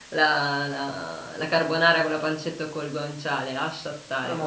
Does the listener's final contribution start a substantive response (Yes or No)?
Yes